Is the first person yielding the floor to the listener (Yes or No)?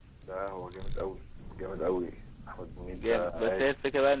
Yes